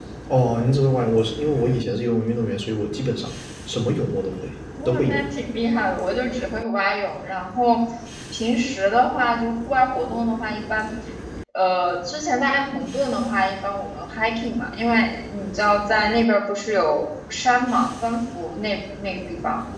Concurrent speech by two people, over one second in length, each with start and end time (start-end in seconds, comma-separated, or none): none